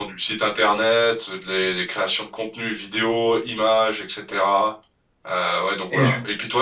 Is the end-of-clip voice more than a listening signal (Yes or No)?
No